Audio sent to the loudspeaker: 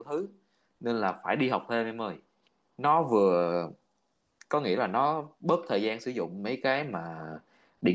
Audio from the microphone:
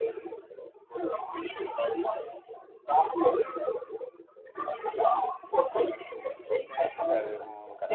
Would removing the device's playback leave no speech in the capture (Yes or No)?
No